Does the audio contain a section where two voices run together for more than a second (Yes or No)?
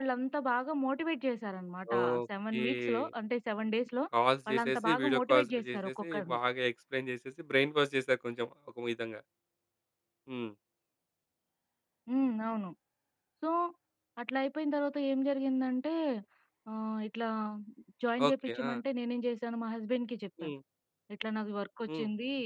Yes